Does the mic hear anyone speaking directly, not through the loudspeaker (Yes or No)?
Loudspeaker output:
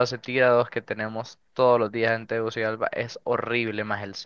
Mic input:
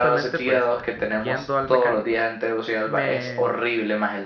Yes